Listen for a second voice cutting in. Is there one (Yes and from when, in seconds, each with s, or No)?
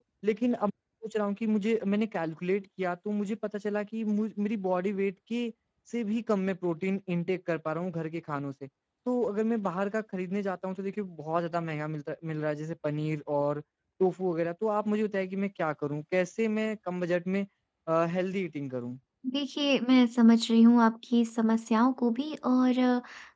No